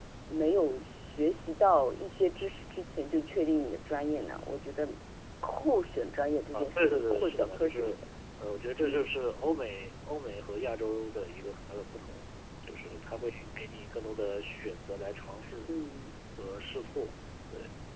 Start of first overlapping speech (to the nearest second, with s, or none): 7 s